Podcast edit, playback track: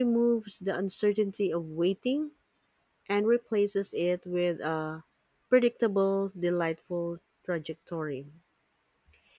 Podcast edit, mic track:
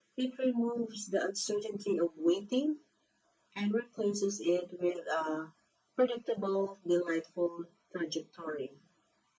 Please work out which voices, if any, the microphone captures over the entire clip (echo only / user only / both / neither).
echo only